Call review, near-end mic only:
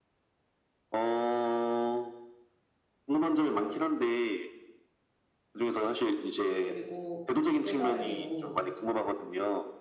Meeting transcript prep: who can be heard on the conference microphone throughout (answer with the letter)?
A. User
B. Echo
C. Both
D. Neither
C